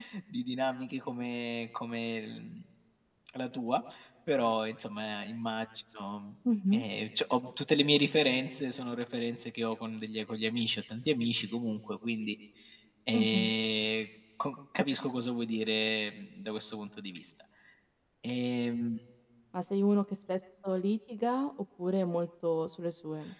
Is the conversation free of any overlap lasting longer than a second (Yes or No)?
Yes